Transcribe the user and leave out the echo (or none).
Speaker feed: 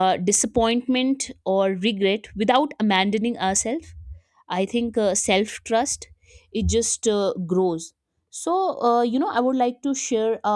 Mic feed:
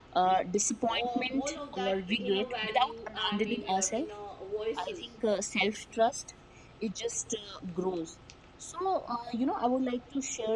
all, all of that inner value i mean your inner voices